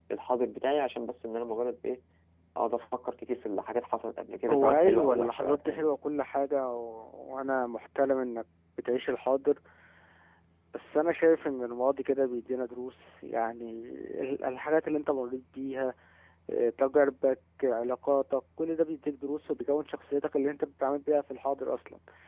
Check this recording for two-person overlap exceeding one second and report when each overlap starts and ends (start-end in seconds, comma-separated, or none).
4.5-5.9